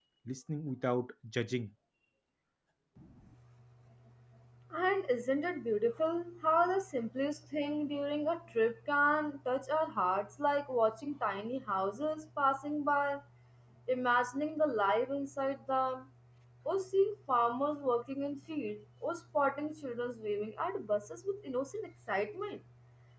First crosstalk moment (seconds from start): none

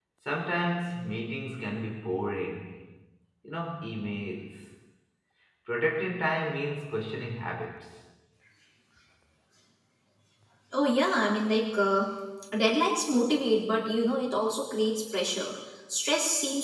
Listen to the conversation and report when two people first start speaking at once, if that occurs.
none

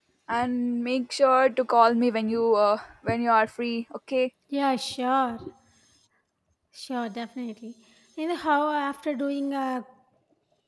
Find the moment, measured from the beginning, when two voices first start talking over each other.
none

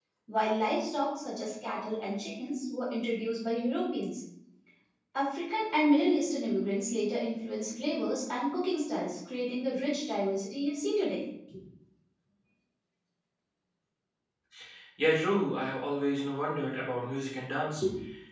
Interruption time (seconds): none

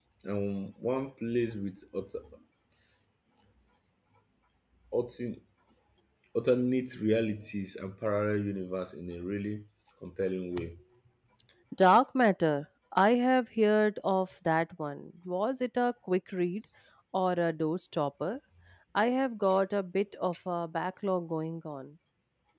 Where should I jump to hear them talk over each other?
none

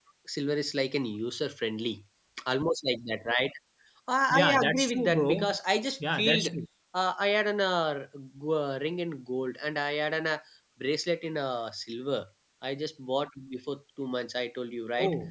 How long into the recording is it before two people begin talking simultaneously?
4.3 s

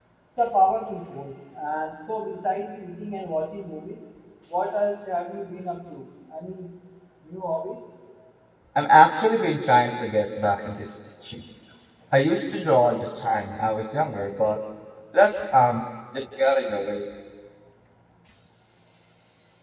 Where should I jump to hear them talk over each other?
none

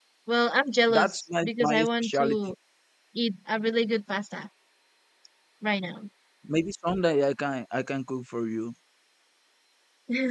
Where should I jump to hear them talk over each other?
0.9 s

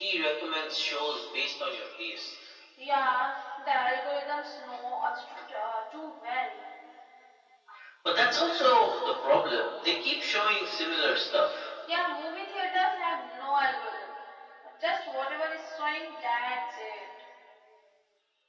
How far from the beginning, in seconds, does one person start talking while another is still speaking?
none

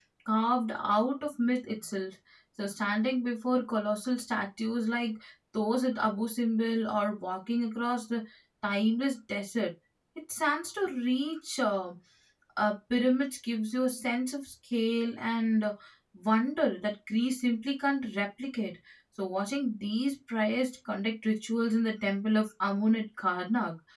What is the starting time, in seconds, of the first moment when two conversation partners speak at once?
none

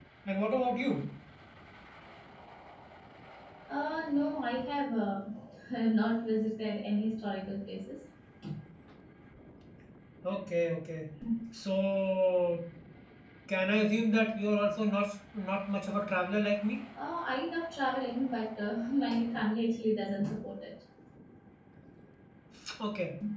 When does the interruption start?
none

